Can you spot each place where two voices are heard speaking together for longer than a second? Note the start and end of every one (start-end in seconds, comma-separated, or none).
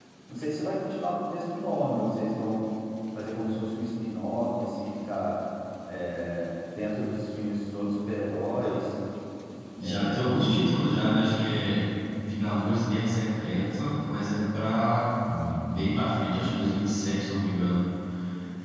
9.8-11.2